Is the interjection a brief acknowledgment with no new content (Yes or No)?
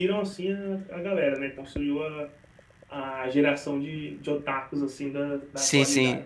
No